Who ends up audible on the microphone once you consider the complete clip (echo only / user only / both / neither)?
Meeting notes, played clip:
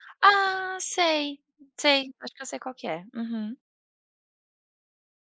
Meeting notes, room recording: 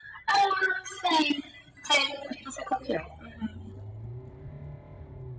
echo only